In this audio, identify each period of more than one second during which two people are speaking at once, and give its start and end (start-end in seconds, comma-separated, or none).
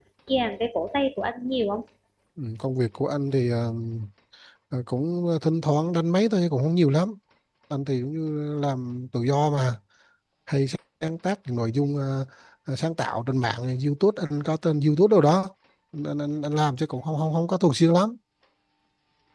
none